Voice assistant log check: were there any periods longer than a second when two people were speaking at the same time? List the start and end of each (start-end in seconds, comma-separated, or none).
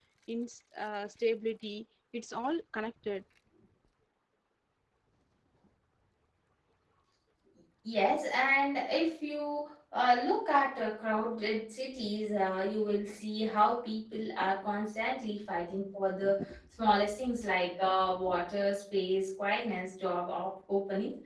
none